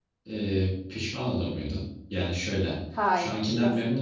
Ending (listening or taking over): listening